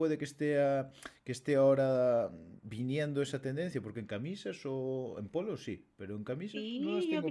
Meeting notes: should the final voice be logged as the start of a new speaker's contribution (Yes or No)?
Yes